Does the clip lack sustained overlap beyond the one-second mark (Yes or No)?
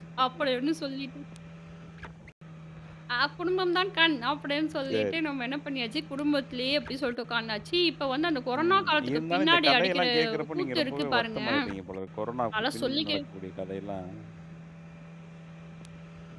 No